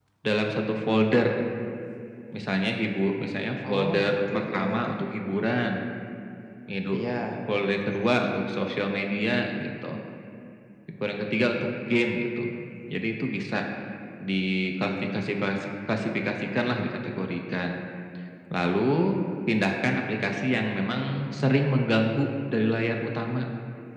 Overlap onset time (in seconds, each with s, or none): 3.7 s